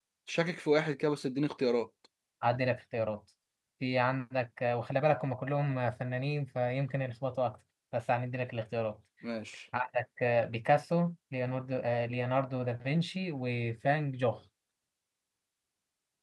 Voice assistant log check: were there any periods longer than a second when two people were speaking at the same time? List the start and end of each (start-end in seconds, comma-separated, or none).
none